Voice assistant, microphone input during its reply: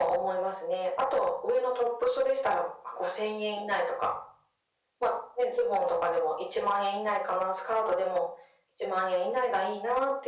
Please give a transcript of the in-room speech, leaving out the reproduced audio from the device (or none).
none